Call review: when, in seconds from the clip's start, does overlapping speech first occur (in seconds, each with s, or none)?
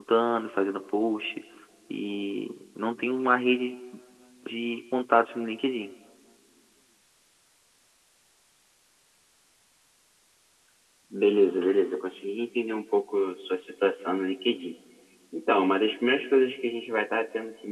none